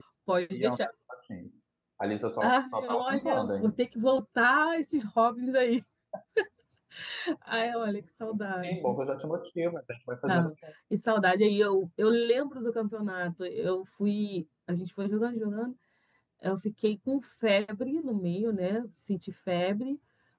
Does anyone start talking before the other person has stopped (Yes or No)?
Yes